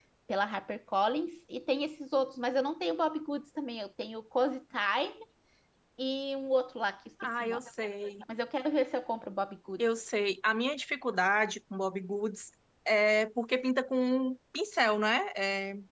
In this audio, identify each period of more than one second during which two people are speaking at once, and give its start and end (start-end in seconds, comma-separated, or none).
none